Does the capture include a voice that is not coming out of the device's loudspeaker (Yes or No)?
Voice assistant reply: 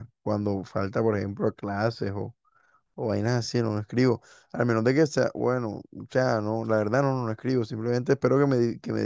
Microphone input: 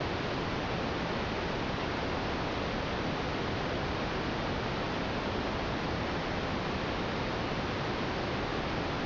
No